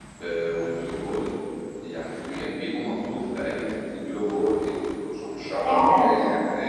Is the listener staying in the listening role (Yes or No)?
Yes